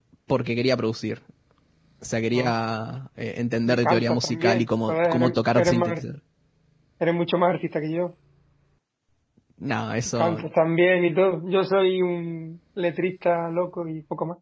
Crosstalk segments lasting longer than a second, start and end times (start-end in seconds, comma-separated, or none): 3.7-6.0